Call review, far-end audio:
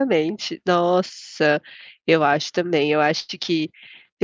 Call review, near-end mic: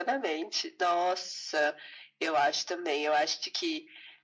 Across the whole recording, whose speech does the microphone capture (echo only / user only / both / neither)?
echo only